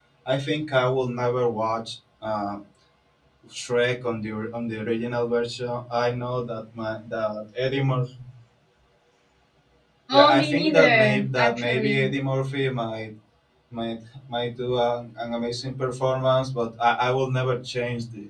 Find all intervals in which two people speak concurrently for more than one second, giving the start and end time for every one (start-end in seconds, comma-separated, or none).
10.1-12.1